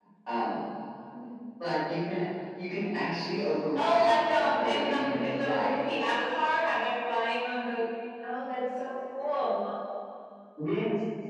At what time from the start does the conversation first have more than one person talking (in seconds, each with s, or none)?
3.8 s